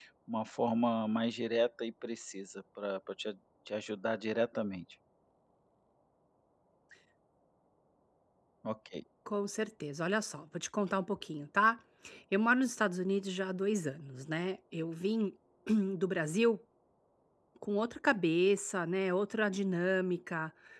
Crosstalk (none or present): none